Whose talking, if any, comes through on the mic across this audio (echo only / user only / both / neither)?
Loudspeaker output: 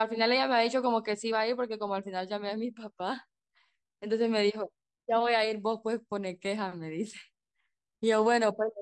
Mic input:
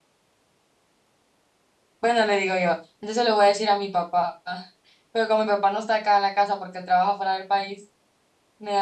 user only